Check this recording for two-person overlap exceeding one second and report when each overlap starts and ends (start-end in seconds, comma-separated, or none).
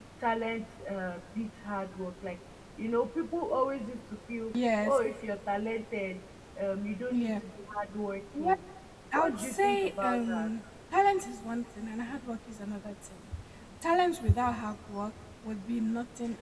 9.1-10.5